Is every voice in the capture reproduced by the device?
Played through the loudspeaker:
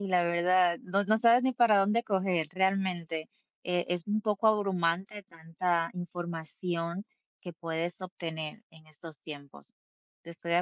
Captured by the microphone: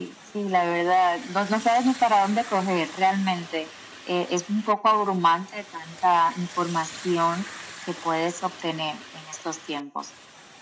Yes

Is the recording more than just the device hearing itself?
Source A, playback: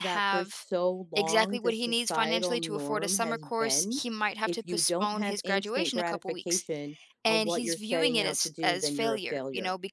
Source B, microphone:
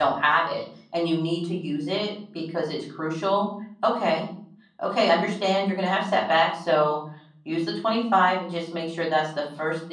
Yes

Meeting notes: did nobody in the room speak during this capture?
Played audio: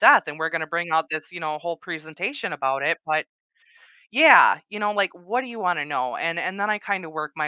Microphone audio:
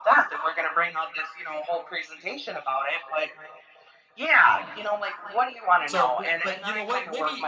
No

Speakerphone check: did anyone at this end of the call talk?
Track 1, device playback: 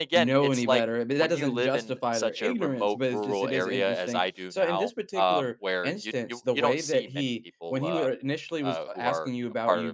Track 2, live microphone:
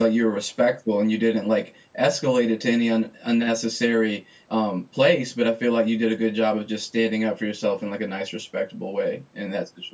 Yes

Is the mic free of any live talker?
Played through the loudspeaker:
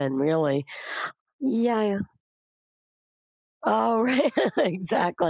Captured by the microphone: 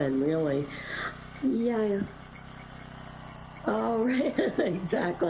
Yes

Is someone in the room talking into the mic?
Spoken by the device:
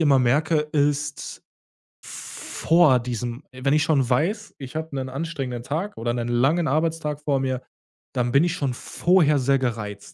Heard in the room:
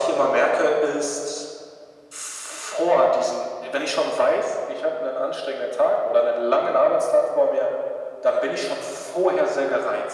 No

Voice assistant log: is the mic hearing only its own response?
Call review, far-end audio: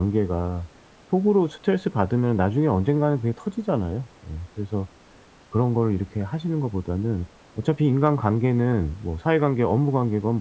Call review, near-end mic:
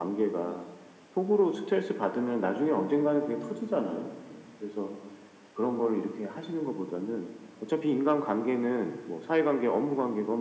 Yes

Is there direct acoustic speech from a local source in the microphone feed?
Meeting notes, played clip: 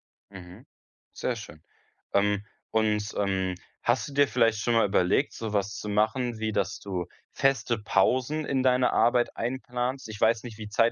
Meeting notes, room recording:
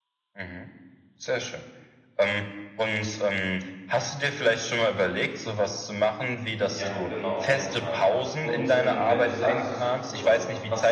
Yes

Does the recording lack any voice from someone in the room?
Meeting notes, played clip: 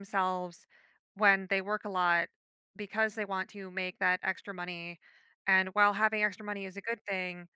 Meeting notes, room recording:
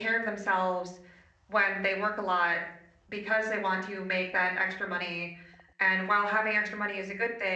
Yes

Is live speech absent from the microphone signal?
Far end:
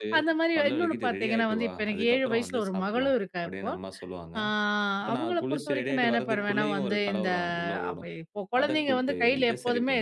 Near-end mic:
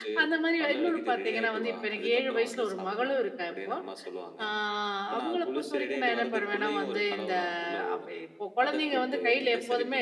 Yes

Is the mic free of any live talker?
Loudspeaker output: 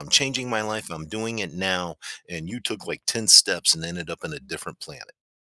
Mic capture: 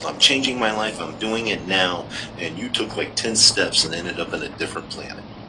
Yes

